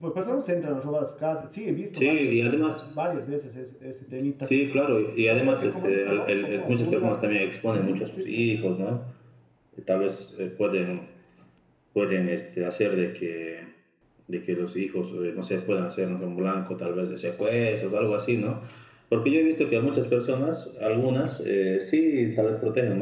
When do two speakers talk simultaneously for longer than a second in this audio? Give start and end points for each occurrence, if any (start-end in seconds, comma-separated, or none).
5.3-7.1